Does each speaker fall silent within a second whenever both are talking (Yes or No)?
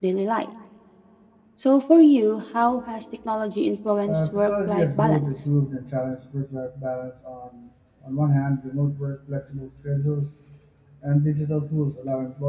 No